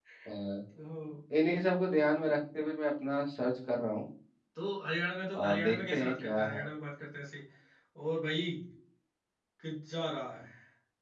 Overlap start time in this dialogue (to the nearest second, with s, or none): 5 s